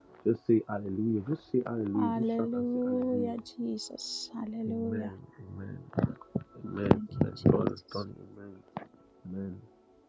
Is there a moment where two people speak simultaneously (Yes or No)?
Yes